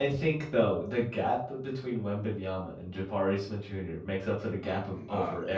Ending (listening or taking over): taking over